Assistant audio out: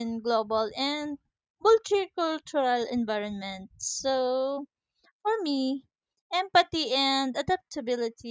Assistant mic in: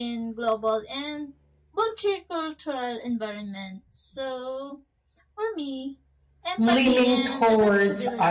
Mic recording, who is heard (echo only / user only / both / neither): both